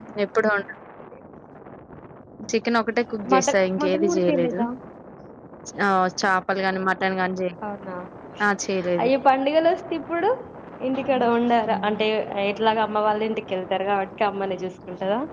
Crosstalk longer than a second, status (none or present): present